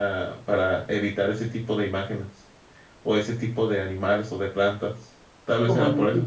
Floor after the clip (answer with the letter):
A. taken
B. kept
A